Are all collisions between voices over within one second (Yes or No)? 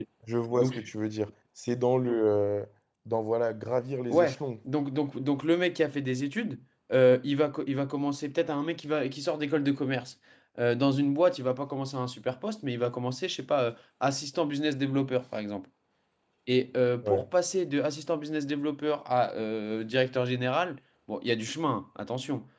Yes